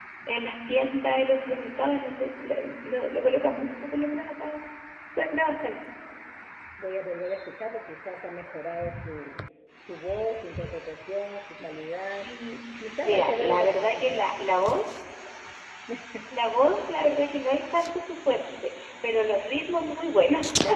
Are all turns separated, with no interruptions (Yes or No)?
No